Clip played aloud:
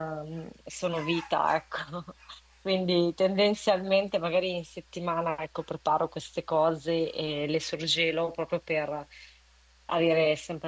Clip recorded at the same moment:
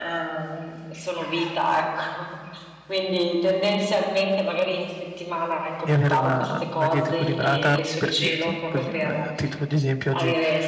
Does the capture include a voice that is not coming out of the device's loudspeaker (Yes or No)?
Yes